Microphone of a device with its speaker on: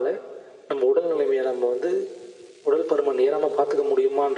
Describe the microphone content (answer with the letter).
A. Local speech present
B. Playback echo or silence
B